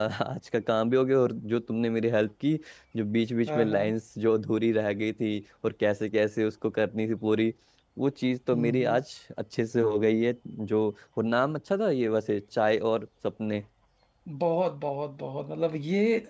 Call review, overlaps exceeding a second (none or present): none